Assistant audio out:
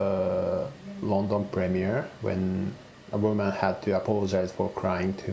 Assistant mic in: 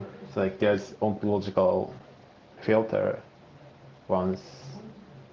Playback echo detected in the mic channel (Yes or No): No